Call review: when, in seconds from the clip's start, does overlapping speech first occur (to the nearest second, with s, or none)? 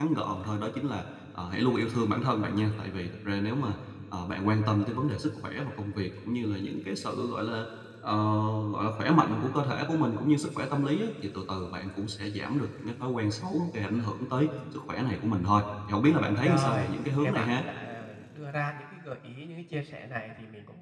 16 s